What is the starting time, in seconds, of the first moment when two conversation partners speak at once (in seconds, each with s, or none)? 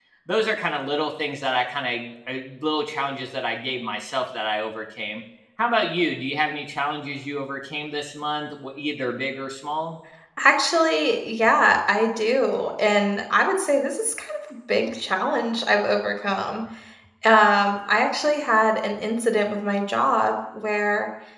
none